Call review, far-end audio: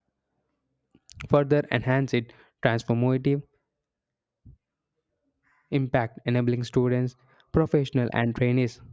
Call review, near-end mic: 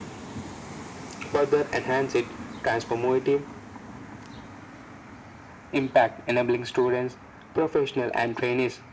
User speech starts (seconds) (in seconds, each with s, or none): none